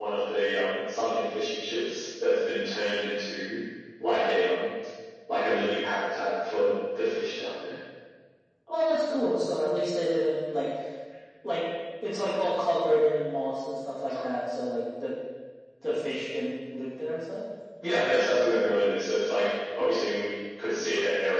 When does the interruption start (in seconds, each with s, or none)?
none